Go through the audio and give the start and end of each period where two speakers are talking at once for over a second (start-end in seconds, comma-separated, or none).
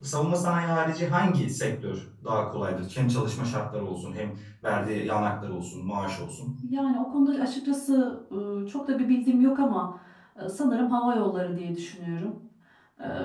none